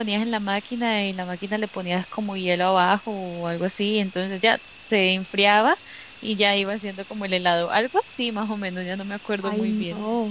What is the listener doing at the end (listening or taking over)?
taking over